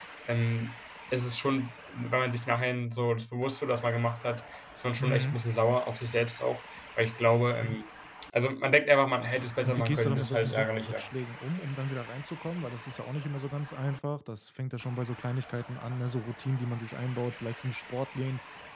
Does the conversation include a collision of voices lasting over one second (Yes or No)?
Yes